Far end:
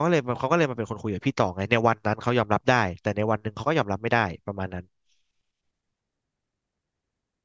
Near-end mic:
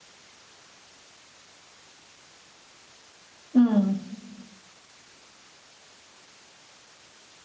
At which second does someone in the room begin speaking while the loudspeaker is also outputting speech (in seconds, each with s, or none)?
3.5 s